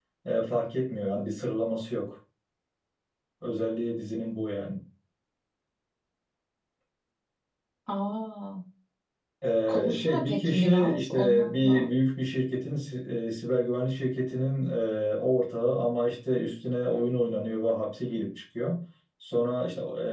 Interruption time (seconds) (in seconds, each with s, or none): 9.7 s